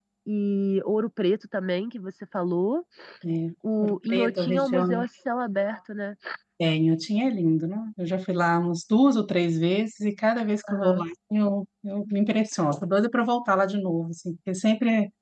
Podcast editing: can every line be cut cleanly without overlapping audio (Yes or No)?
No